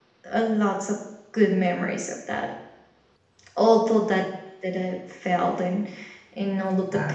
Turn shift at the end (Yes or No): No